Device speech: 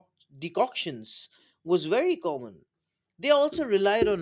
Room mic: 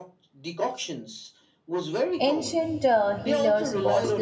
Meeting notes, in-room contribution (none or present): present